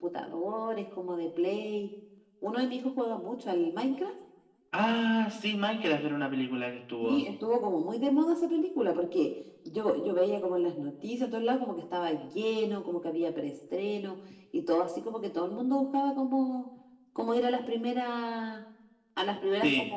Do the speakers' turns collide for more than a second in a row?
No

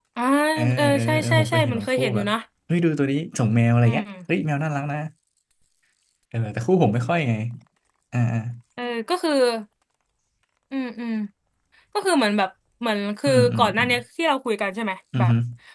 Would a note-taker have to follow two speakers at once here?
Yes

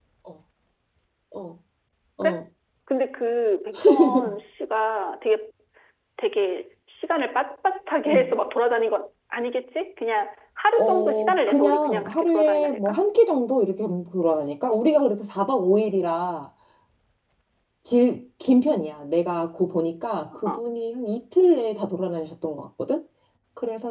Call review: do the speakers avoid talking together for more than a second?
No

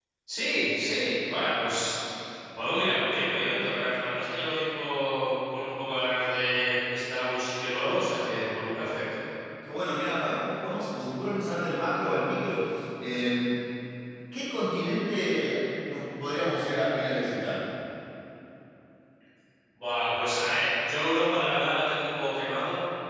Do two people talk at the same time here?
No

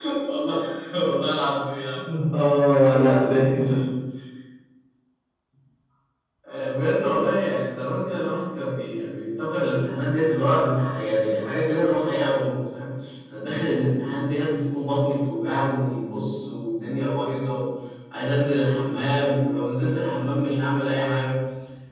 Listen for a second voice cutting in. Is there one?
No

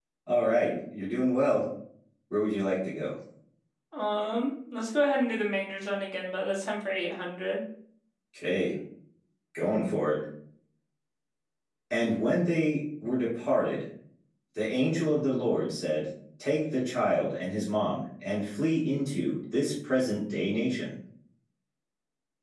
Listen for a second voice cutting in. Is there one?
No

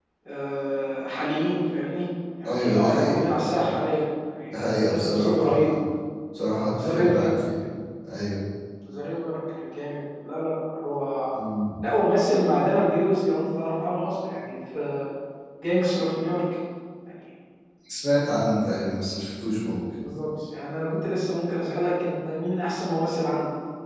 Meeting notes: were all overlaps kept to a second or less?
No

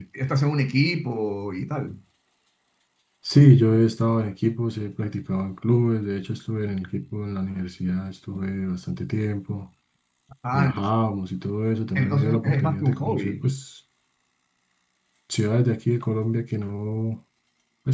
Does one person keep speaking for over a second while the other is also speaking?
Yes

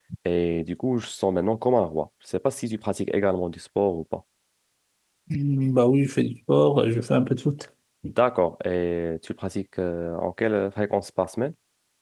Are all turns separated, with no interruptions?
Yes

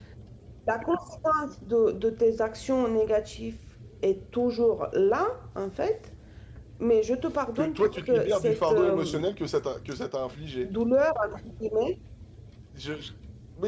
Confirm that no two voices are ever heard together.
No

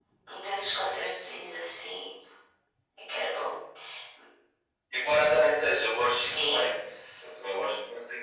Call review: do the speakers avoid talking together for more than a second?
Yes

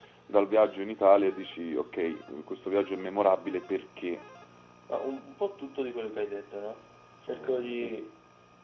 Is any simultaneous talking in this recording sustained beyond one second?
No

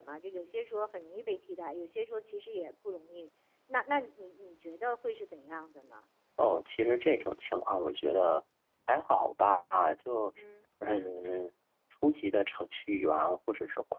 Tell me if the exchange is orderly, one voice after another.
Yes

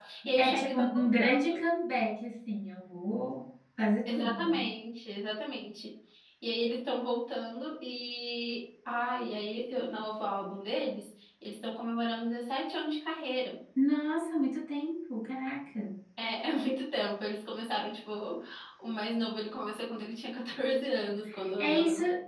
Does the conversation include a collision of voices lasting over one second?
Yes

